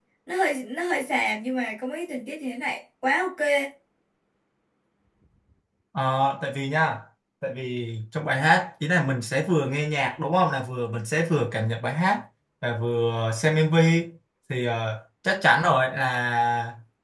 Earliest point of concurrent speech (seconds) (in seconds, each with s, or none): none